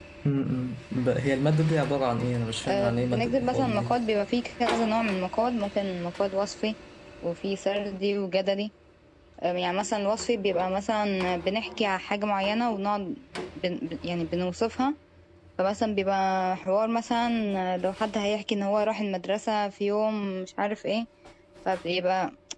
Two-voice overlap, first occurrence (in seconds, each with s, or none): 2.6 s